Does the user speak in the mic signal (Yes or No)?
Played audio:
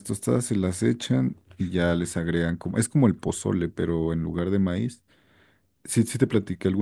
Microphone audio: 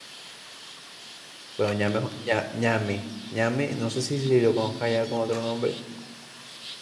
Yes